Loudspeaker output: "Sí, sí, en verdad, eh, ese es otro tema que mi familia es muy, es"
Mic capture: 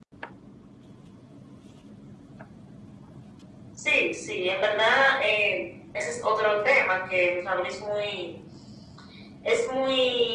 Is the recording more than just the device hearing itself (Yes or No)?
No